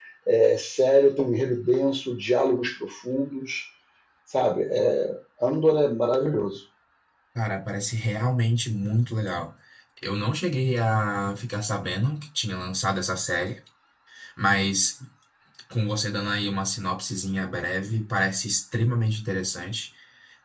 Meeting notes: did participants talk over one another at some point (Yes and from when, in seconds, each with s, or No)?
No